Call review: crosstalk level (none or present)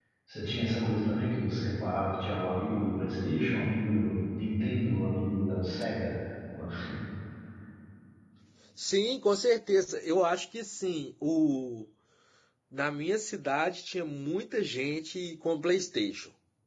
none